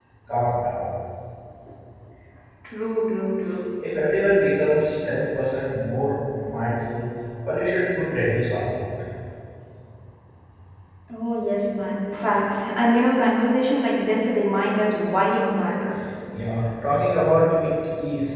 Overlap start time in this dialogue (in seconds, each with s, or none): none